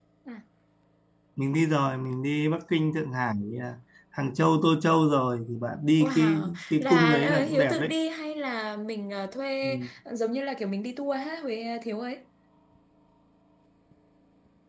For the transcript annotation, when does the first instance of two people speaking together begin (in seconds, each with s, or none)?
6.0 s